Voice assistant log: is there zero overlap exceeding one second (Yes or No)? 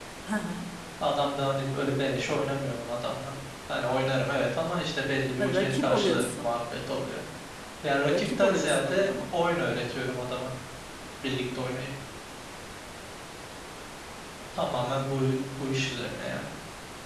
No